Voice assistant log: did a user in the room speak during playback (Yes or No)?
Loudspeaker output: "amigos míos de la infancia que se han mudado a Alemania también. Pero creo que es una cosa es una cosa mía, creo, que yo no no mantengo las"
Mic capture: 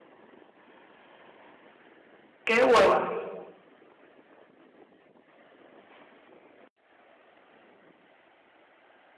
Yes